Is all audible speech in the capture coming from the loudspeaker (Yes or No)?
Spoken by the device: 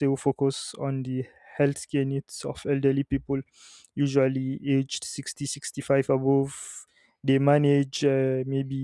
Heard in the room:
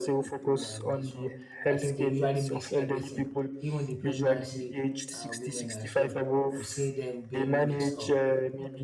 No